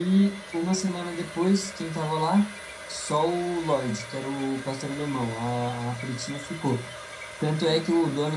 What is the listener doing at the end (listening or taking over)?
listening